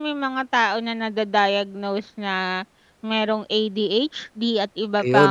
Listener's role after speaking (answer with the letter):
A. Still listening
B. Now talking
A